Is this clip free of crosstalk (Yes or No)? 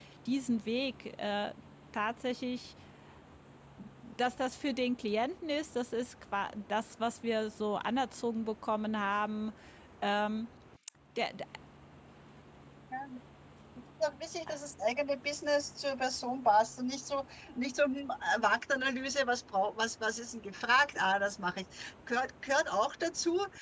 Yes